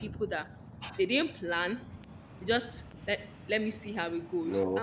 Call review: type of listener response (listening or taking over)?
listening